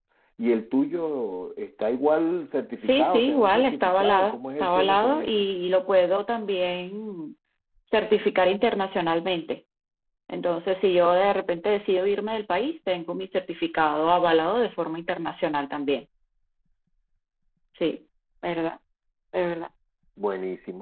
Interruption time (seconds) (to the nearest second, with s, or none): 3 s